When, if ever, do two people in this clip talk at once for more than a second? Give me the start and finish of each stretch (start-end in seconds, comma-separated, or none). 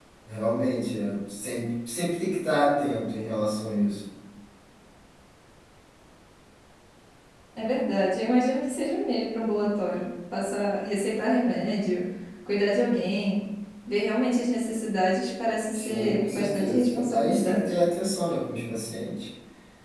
15.7-17.7